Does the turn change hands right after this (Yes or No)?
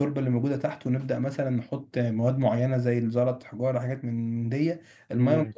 Yes